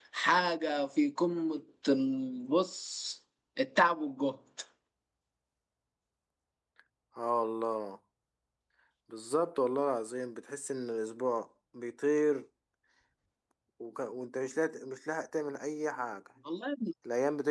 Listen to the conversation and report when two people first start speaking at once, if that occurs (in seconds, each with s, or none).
none